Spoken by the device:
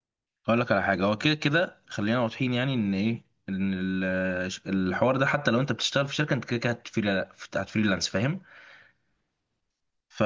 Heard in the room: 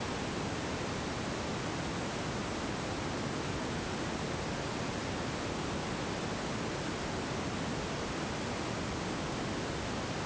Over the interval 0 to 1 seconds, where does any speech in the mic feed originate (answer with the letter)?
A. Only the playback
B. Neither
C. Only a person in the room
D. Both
B